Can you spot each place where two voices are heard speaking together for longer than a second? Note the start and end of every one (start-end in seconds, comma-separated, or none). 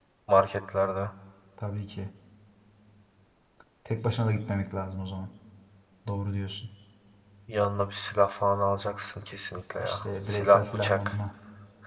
9.8-11.2